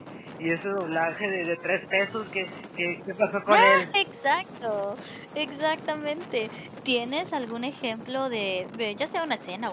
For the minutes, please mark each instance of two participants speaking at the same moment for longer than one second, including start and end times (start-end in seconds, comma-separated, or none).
none